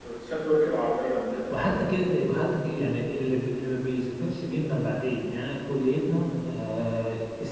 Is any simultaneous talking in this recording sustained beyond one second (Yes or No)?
No